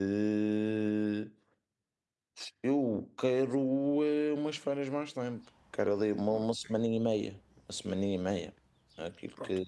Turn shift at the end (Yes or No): Yes